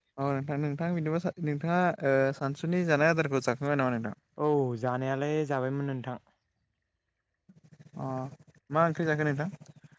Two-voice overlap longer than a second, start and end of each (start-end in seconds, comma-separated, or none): none